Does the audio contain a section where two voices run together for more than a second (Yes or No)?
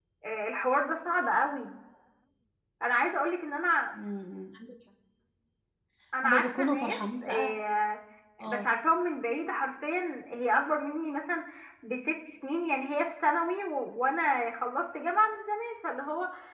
Yes